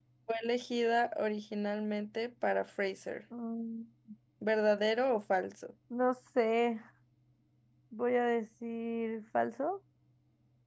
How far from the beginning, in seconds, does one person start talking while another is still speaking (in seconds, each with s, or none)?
none